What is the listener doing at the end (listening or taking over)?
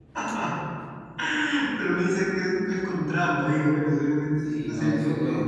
taking over